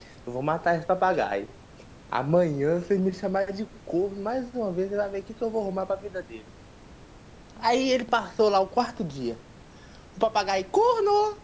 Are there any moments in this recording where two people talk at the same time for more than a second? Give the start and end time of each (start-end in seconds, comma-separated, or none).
none